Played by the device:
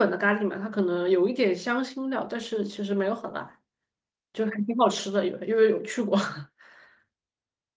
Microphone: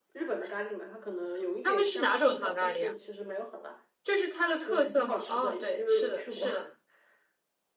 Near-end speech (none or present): present